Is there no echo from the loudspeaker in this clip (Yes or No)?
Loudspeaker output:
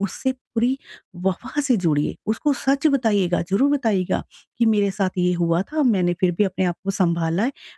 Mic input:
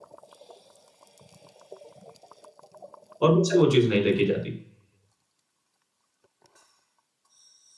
Yes